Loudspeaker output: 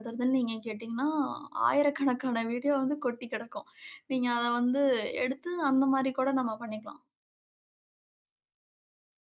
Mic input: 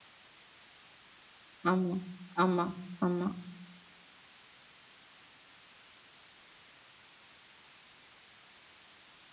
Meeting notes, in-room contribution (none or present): present